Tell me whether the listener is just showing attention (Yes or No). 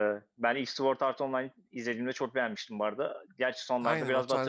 No